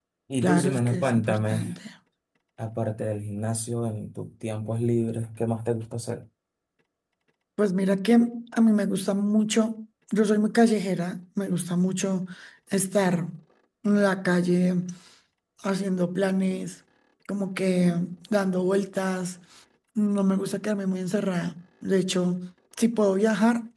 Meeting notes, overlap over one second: present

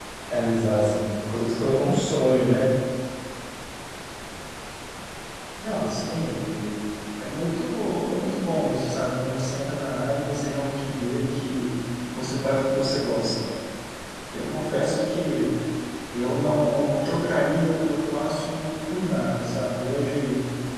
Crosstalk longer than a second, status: none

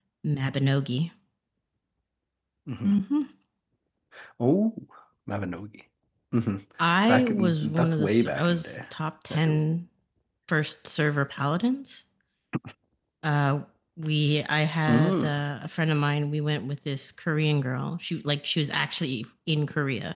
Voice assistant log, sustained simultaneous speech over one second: present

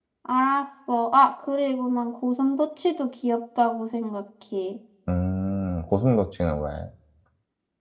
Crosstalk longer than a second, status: none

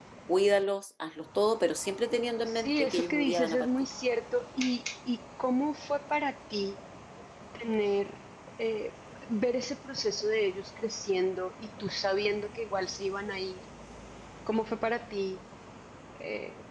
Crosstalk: present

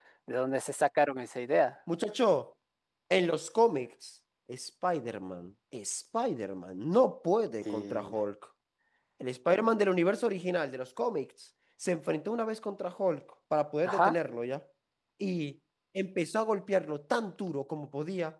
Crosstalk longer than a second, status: none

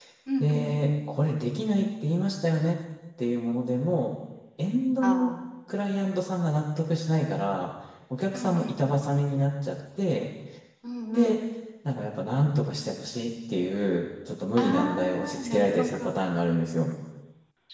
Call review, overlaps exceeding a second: present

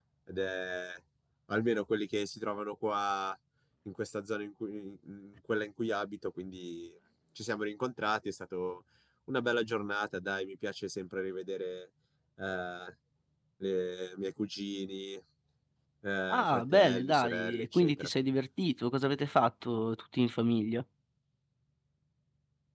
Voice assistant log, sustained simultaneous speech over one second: present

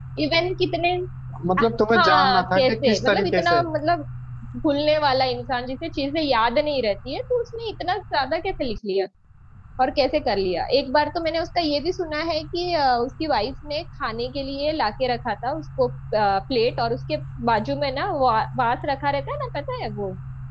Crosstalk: present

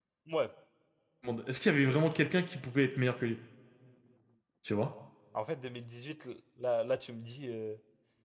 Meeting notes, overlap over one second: none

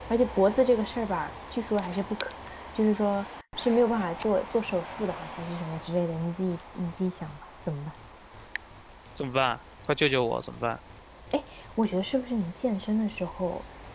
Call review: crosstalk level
none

